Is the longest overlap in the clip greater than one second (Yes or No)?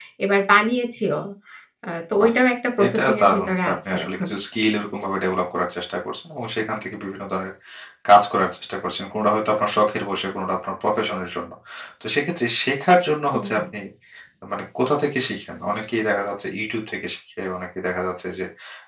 Yes